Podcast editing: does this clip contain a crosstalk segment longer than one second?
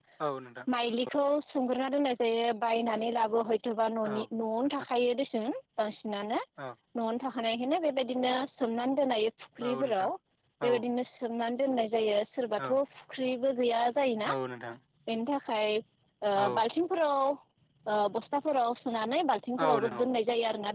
No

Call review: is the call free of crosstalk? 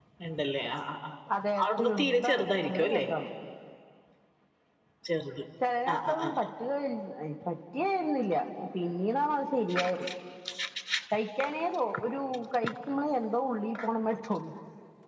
No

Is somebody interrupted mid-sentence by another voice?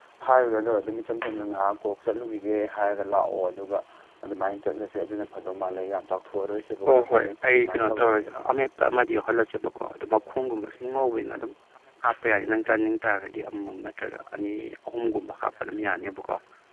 Yes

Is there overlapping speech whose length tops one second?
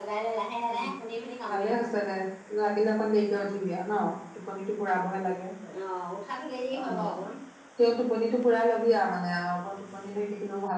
No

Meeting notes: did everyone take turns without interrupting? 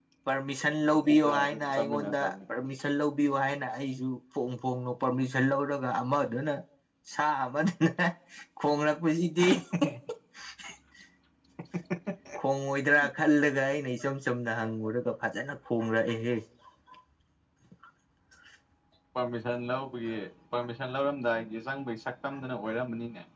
No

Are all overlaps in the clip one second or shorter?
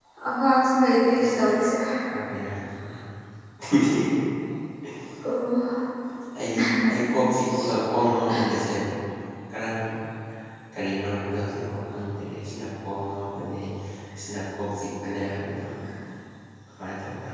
Yes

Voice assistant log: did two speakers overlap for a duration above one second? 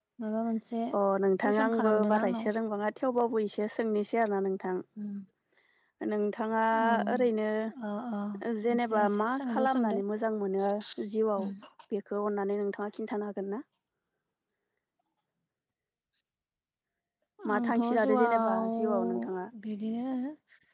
Yes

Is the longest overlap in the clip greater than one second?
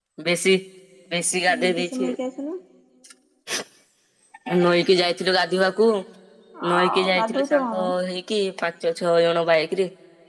Yes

